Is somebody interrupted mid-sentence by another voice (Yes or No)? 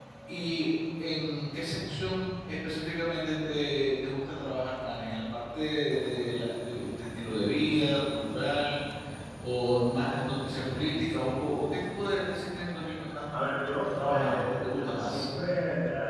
Yes